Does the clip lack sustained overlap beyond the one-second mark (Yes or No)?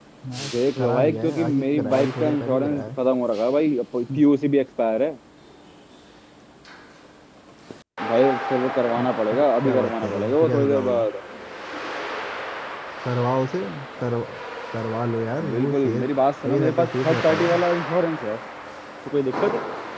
No